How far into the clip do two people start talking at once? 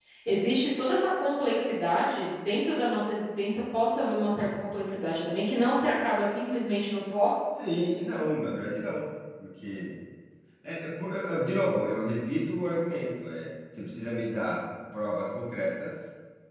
none

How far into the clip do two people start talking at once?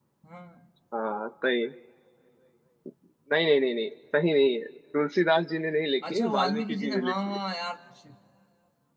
6.0 s

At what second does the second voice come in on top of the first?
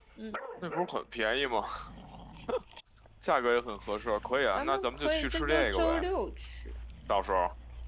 4.5 s

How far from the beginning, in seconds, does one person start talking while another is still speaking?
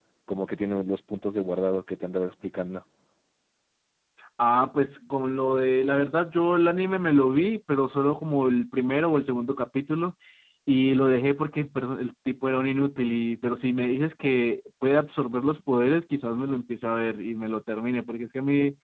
none

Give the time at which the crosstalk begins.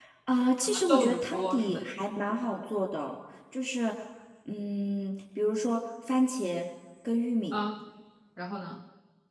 0.6 s

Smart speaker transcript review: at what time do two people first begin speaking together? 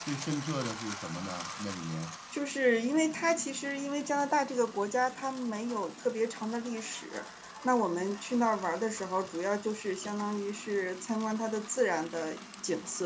none

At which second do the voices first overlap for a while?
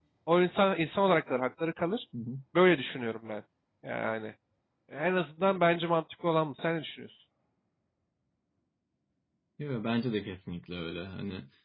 none

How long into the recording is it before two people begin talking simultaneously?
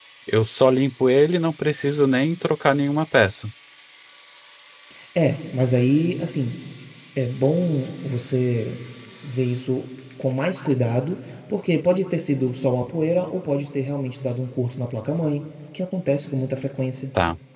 none

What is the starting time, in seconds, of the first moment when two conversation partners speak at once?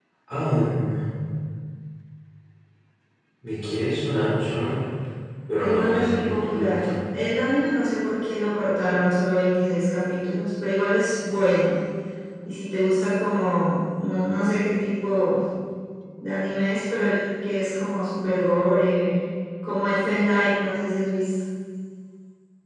5.6 s

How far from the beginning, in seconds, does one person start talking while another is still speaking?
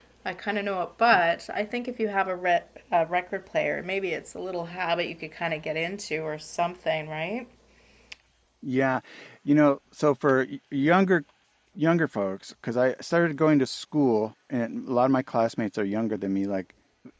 none

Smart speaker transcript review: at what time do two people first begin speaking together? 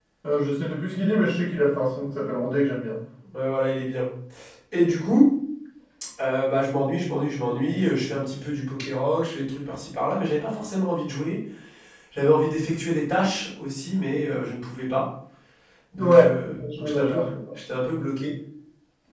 16.0 s

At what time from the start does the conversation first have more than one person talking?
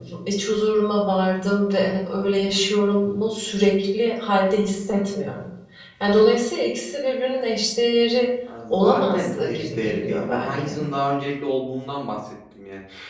8.7 s

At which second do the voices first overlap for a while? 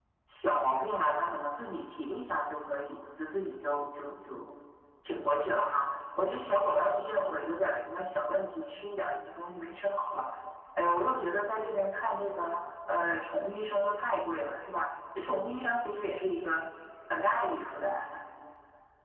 none

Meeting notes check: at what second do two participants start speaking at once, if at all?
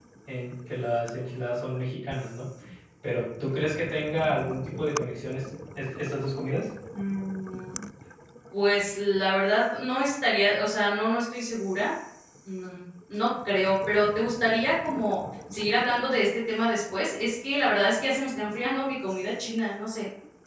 none

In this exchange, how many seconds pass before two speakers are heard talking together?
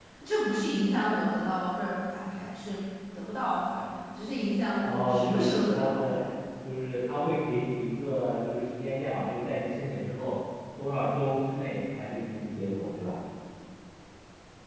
4.8 s

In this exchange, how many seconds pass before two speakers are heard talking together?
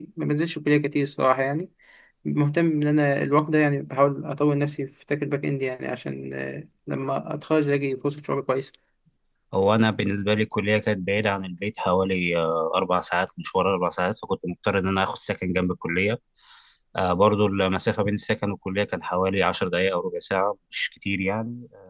none

